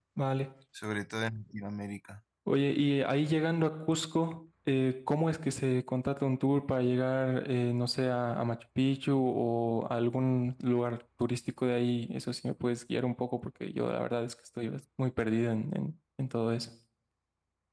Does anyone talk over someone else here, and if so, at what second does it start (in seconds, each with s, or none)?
none